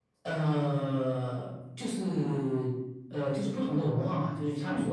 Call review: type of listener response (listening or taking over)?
listening